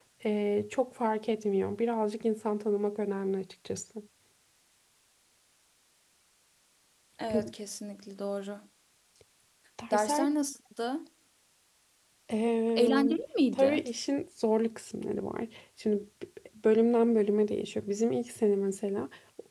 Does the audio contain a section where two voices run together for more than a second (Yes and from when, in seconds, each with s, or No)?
No